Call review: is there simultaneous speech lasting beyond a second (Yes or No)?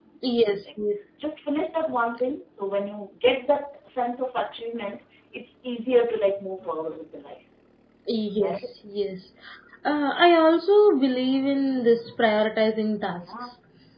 No